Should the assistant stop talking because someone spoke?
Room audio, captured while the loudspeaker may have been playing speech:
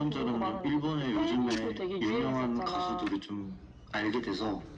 No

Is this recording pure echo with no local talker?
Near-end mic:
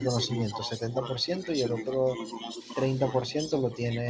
No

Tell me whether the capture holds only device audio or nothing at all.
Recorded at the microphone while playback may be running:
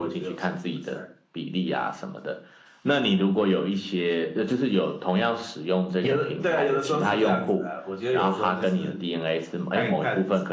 Yes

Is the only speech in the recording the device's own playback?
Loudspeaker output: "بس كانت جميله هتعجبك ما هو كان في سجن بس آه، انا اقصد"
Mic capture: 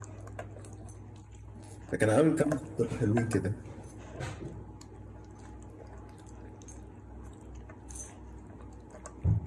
No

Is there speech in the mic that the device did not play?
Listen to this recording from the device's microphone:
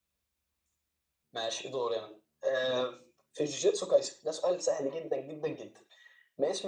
No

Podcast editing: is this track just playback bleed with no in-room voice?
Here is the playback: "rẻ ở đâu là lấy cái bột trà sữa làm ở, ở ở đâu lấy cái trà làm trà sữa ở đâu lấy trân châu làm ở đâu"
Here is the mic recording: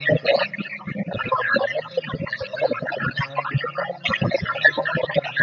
Yes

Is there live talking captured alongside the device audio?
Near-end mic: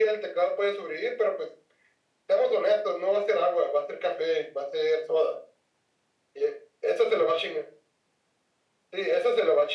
No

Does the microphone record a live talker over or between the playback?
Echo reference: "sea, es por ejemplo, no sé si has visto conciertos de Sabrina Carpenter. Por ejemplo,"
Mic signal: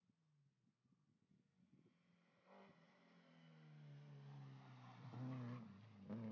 No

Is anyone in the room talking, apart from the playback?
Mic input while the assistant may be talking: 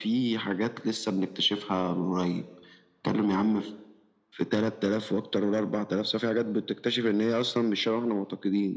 No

